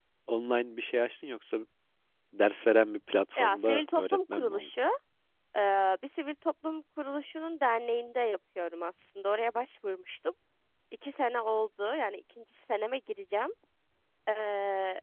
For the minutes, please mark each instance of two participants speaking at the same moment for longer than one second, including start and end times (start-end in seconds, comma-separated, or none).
3.4-4.7